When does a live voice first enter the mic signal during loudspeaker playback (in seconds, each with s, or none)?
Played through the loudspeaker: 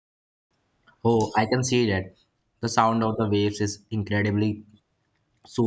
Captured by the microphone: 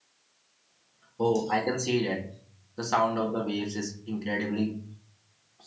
none